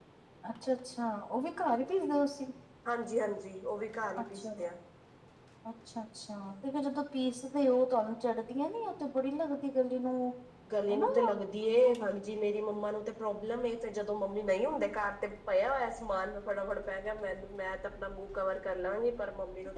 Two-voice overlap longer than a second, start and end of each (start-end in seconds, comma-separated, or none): none